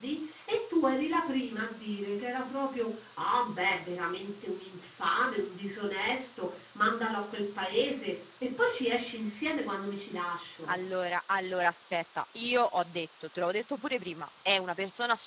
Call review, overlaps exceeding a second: none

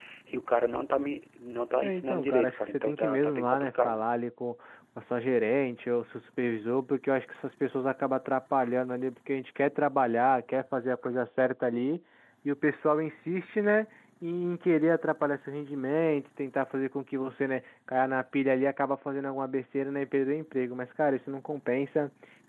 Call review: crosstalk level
present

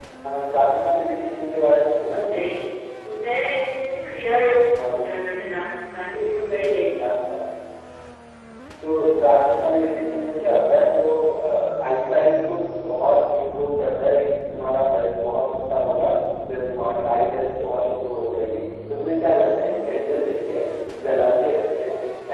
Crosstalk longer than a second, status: none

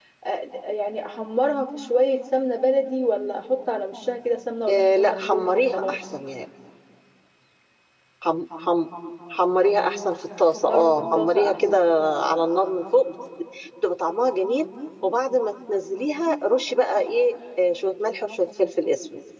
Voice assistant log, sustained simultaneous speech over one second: present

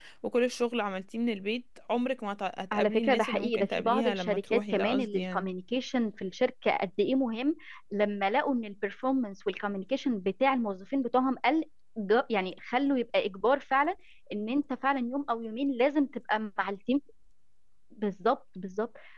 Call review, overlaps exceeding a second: present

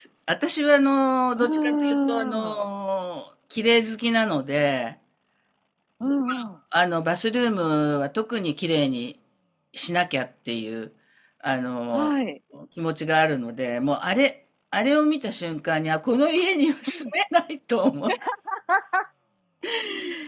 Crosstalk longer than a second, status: present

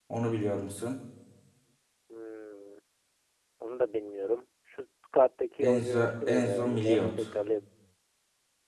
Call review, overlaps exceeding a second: present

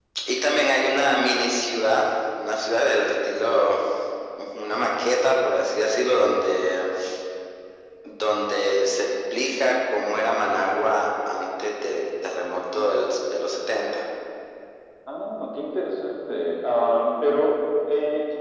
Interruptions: none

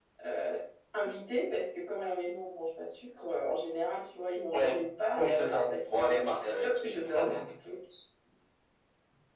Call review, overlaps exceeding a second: present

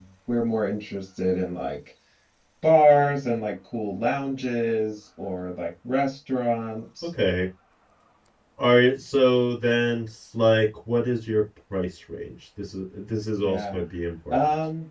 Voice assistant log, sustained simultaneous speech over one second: none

